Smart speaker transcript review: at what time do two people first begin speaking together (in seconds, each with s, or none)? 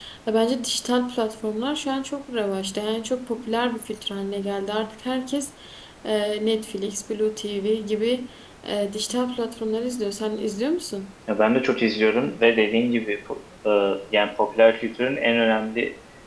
none